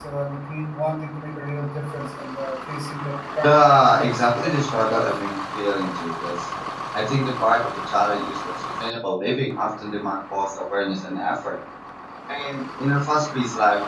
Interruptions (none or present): present